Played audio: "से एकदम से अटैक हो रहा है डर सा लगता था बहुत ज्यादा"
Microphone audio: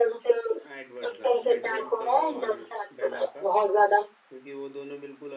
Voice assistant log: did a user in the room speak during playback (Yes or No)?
Yes